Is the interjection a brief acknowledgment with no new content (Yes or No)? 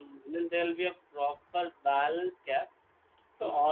Yes